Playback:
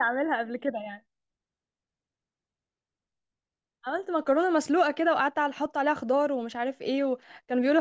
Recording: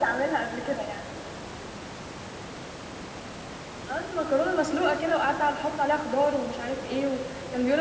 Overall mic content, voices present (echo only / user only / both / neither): echo only